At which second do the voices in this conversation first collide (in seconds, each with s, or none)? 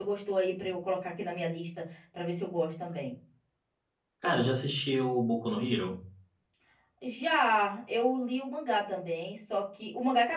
none